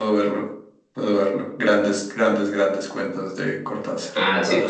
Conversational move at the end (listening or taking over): taking over